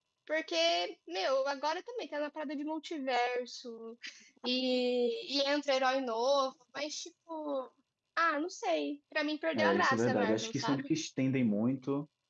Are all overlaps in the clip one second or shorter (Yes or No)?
No